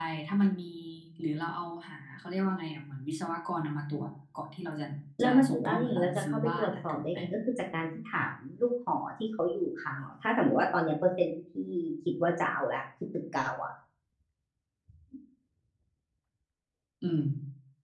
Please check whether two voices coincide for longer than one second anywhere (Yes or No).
Yes